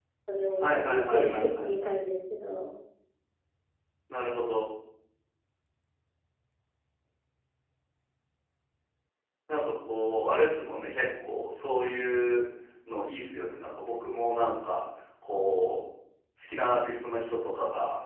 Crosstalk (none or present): present